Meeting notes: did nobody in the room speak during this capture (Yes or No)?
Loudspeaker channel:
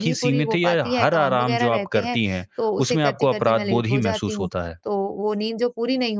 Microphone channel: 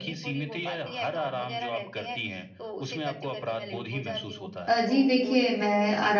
No